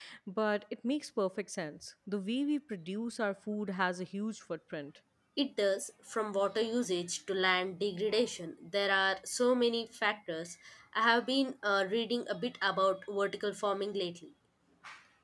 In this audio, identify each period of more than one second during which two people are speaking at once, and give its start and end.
none

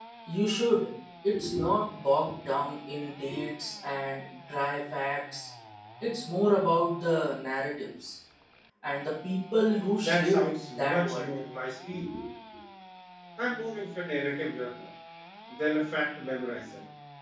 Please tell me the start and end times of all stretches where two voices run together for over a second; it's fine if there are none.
10.0-11.3

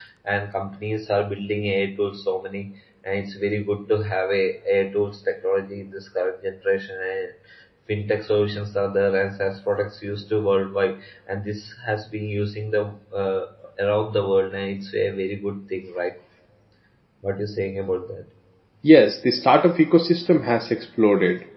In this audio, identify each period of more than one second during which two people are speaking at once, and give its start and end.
none

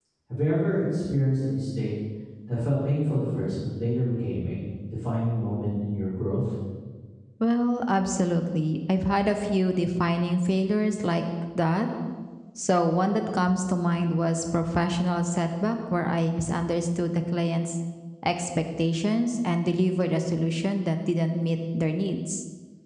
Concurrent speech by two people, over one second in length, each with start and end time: none

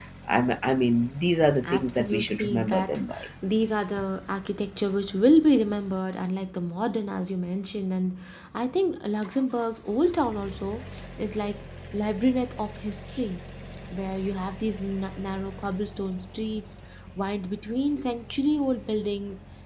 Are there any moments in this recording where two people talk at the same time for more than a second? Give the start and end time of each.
1.6-3.0

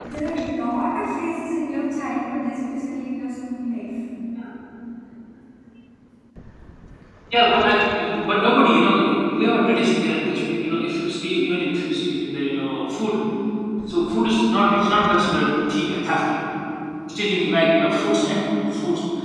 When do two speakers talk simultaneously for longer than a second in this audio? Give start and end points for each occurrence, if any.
none

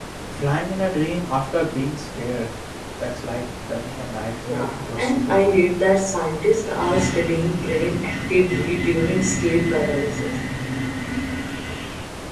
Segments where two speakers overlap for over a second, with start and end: 4.4-5.7

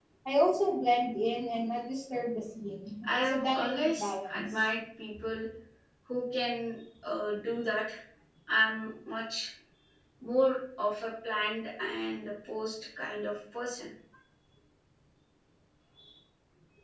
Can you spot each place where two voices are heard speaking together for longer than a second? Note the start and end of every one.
3.1-4.6

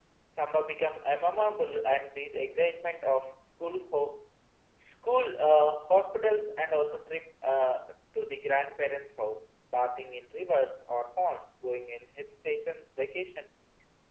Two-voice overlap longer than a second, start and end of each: none

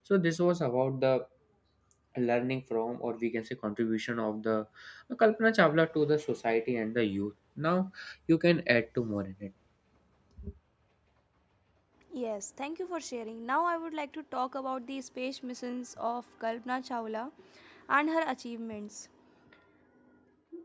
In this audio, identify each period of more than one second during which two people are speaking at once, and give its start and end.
none

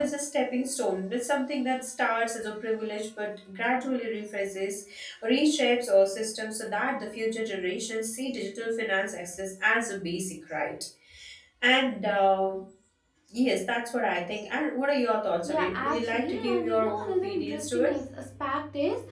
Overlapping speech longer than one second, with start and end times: 15.4-17.9

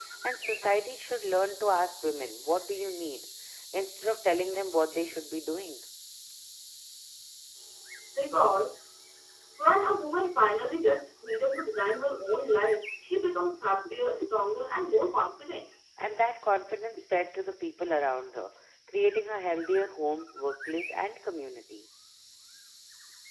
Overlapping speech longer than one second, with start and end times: none

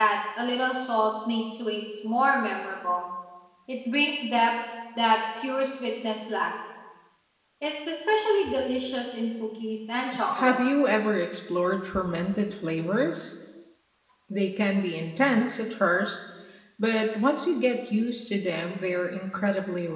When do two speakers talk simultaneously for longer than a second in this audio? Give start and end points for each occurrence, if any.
none

